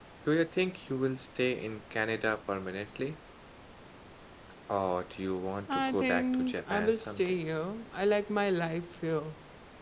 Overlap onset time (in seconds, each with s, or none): 5.7 s